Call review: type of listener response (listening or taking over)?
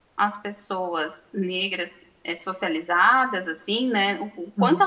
listening